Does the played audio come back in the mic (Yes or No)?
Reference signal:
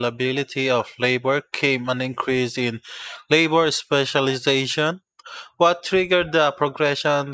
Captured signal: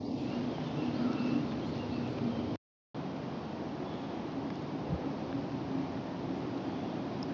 No